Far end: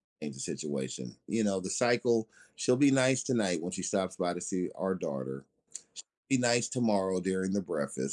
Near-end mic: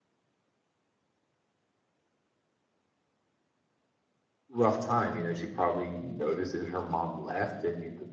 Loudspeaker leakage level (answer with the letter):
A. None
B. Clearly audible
A